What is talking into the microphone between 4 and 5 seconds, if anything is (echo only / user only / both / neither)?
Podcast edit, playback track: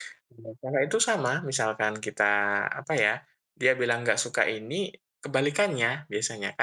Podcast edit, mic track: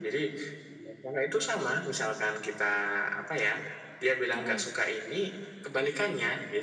both